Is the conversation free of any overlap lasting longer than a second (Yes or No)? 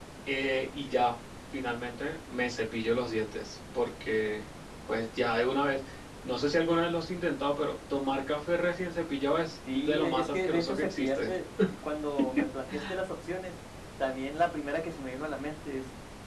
No